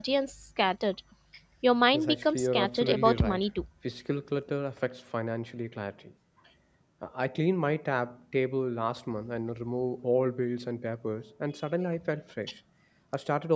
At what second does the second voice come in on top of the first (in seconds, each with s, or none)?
1.9 s